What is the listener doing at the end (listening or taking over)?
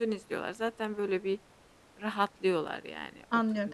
taking over